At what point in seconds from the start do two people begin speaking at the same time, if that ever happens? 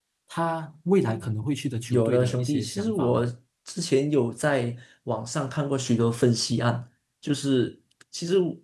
1.9 s

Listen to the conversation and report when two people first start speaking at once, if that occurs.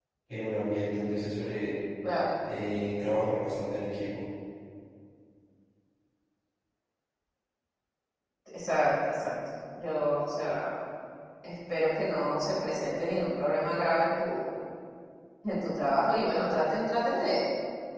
none

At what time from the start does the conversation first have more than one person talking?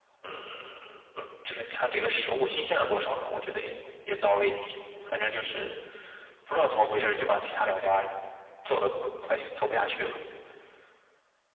none

